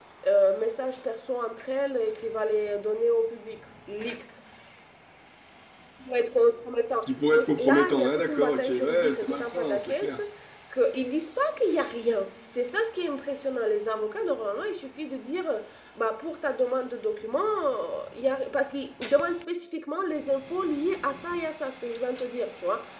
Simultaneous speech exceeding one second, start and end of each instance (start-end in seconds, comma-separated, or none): 7.1-10.2